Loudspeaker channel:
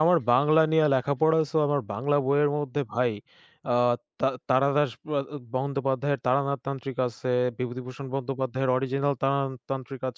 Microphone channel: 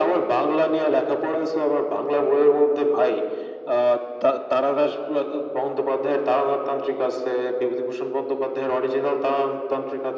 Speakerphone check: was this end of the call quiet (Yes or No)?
Yes